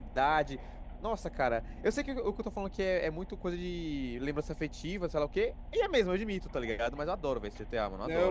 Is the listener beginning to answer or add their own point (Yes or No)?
Yes